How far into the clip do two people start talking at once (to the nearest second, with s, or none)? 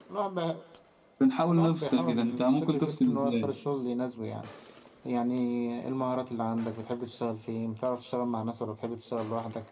1 s